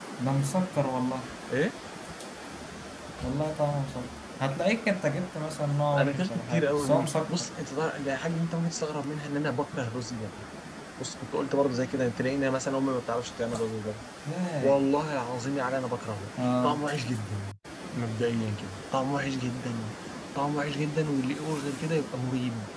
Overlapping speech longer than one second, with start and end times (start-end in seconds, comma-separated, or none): 6.0-7.5